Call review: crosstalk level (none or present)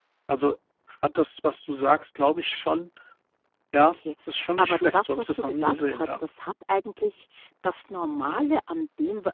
present